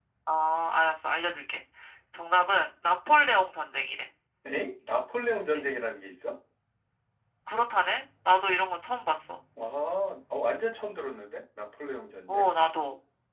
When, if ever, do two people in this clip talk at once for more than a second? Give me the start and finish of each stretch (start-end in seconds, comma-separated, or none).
none